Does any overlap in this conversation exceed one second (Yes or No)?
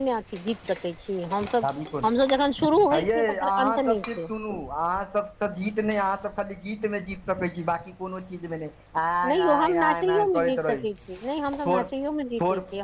Yes